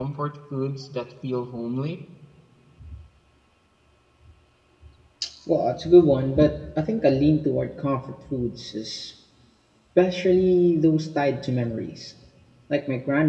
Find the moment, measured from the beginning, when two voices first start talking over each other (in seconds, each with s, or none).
none